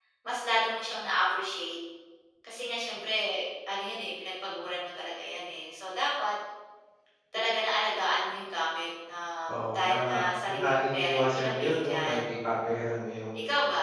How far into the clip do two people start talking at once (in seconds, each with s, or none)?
9.5 s